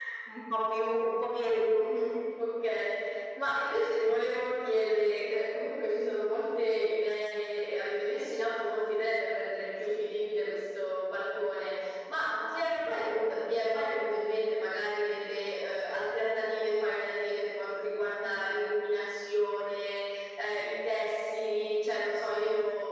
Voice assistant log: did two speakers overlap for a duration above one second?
No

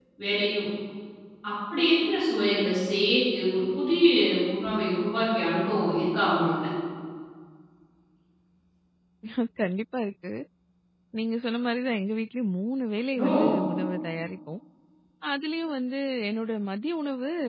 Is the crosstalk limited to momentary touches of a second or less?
Yes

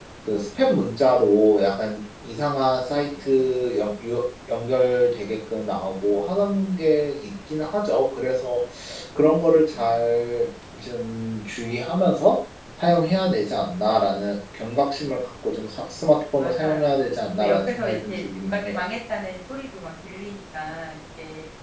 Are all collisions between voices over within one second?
No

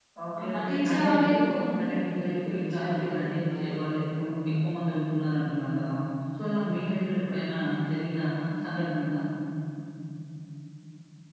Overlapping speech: Yes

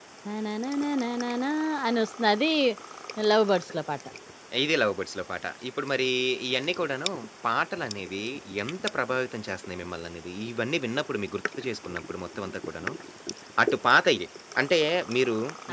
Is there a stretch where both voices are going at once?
No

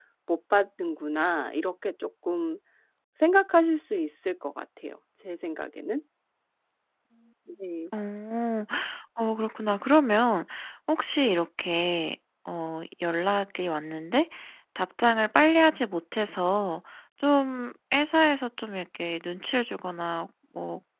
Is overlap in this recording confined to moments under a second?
Yes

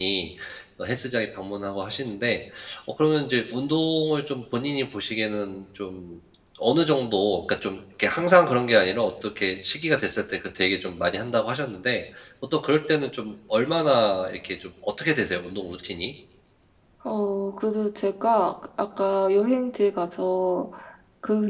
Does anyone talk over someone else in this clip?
No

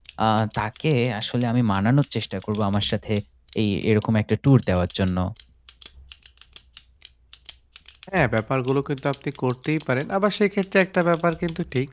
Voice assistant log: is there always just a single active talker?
Yes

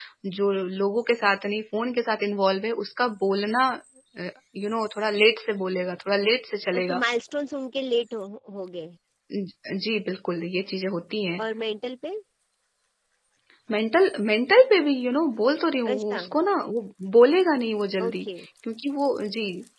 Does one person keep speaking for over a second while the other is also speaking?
No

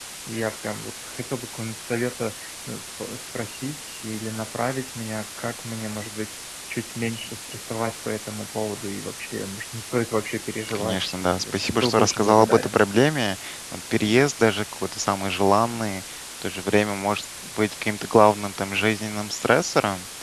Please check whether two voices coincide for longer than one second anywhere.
Yes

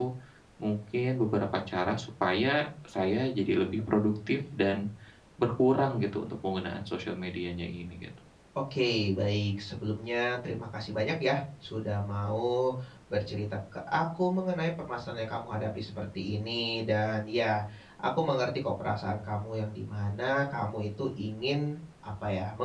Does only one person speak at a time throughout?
Yes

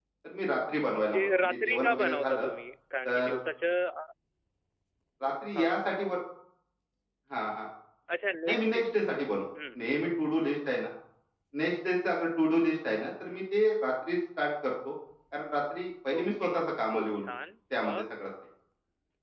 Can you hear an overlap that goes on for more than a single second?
Yes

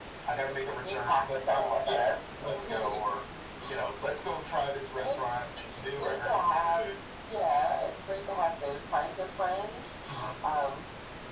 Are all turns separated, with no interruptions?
No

